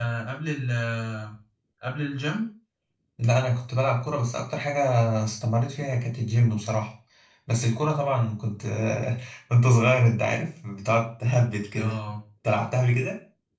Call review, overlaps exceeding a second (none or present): none